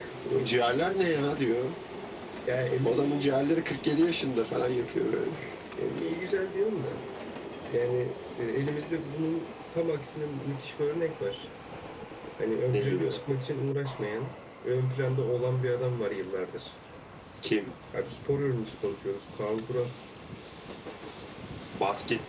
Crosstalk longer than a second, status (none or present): none